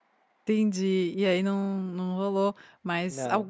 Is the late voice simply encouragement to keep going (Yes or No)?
Yes